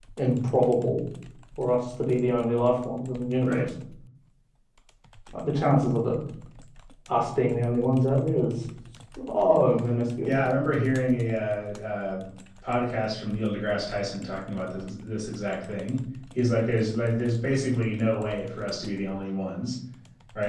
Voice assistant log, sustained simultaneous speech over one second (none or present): none